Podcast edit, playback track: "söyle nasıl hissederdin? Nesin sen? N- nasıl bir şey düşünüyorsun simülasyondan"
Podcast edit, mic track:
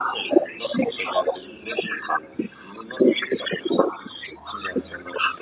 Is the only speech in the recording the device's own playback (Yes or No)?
Yes